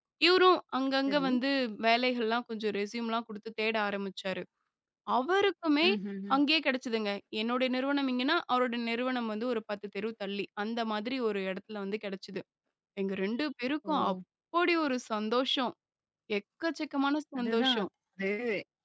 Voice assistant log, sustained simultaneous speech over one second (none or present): none